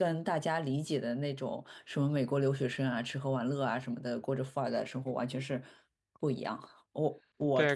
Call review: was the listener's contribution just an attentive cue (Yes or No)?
No